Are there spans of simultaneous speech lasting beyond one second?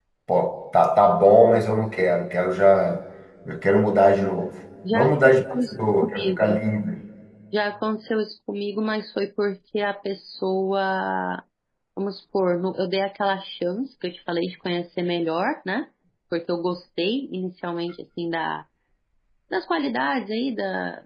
Yes, from 4.8 s

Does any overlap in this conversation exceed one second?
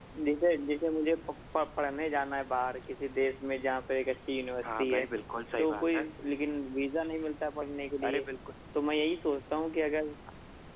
No

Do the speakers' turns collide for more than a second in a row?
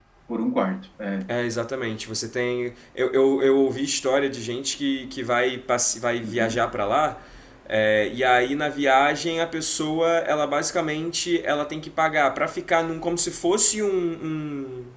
No

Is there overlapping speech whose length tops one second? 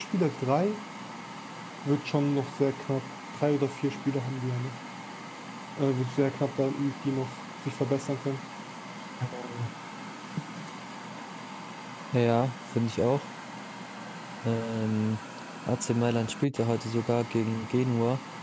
No

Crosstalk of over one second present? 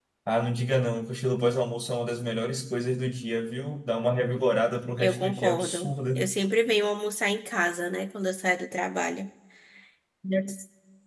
Yes, from 5.0 s

